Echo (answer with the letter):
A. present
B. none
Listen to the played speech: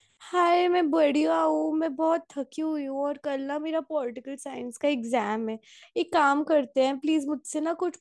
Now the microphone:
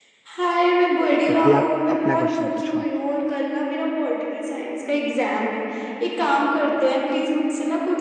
A